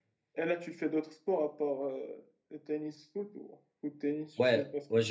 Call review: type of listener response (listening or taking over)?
taking over